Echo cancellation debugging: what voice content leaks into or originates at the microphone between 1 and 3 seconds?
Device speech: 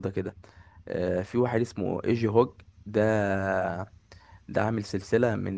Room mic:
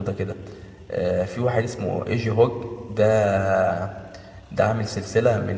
echo only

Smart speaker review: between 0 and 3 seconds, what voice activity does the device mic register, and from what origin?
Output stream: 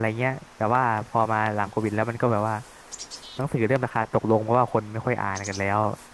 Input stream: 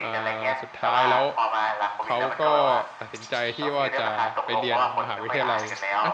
both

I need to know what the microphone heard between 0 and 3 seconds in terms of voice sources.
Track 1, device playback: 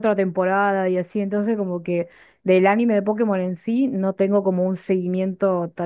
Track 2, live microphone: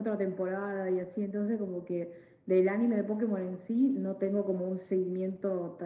echo only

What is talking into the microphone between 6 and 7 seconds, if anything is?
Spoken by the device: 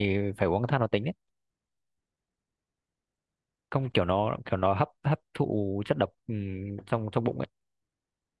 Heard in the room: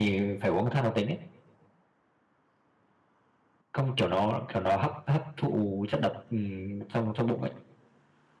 echo only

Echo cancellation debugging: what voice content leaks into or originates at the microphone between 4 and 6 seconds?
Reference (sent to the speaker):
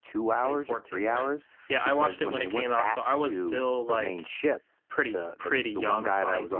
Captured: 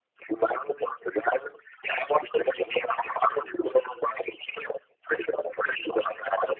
echo only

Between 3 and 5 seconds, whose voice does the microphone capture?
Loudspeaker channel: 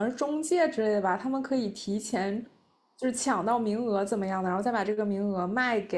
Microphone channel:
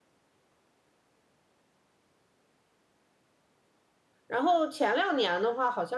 user only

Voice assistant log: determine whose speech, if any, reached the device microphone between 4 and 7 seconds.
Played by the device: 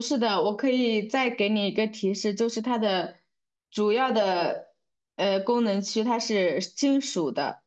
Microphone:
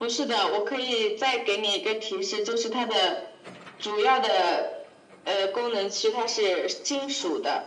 echo only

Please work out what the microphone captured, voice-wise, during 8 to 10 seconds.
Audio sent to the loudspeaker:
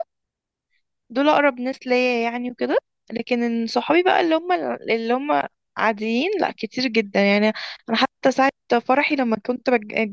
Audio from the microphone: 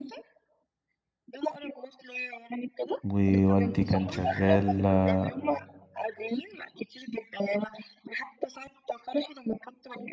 echo only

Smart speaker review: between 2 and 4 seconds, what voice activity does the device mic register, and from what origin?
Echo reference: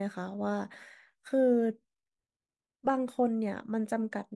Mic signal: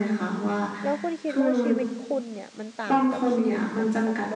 both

